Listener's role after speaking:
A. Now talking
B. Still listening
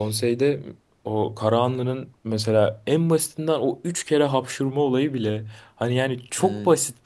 B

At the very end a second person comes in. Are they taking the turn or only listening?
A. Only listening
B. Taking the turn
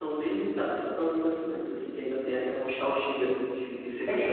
B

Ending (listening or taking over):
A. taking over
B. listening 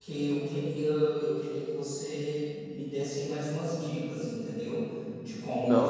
B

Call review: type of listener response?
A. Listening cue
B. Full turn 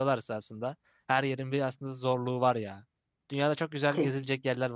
A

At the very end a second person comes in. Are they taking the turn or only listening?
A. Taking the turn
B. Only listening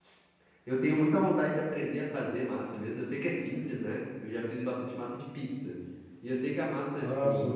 B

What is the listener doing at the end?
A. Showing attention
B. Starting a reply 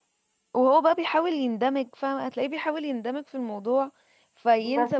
B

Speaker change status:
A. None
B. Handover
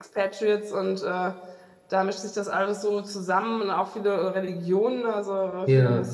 A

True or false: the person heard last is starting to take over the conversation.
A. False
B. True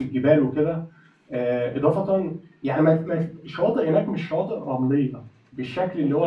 A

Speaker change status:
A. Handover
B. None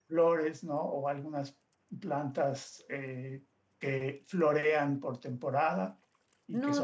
A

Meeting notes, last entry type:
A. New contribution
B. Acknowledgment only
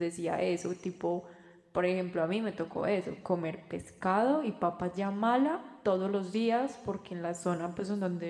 B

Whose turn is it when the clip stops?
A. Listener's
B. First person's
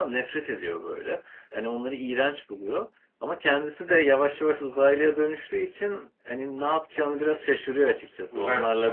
B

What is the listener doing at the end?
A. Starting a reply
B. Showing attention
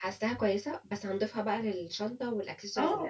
A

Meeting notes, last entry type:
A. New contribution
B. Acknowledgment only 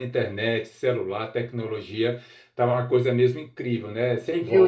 A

